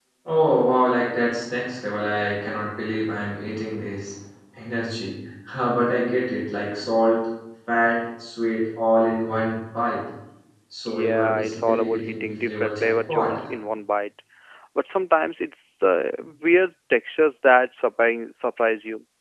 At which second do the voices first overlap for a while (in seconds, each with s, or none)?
10.8 s